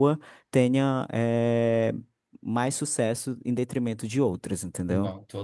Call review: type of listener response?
listening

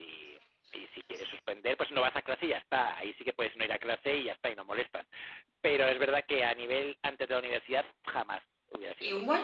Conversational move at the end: taking over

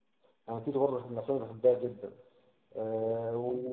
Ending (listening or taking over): listening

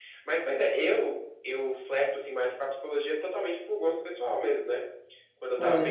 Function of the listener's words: listening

